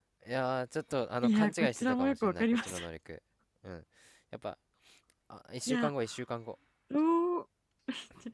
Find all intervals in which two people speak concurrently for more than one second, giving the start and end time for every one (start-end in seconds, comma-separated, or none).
1.2-2.8